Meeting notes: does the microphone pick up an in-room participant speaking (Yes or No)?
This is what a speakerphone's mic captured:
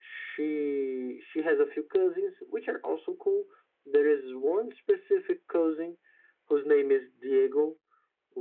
No